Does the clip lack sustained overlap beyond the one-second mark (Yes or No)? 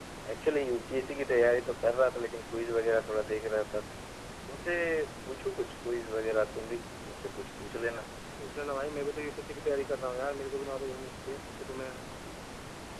Yes